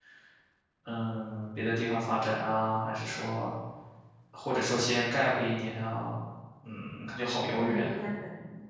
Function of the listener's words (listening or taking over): taking over